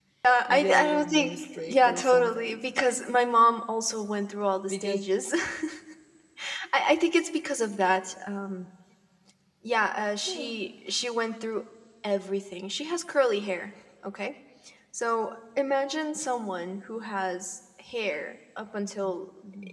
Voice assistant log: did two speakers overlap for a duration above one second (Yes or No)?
Yes